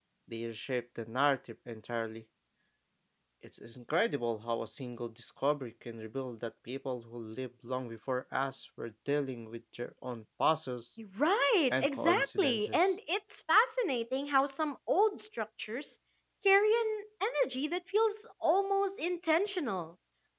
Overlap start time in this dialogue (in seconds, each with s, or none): 11.7 s